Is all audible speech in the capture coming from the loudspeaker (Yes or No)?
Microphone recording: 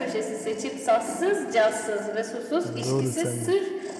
No